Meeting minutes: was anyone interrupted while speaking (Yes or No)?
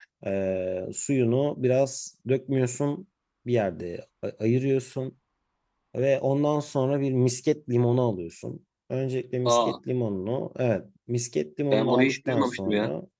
Yes